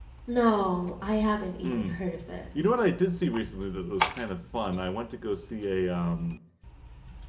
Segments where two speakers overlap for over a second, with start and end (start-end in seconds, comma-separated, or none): none